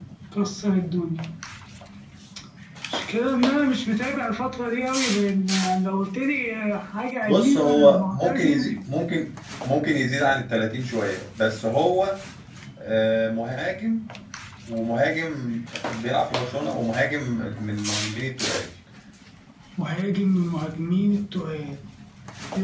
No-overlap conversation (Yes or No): No